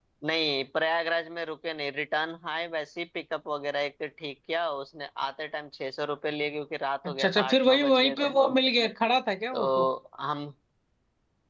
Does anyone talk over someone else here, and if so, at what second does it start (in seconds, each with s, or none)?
7.0 s